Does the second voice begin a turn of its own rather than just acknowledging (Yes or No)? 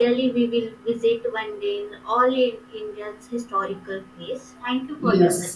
Yes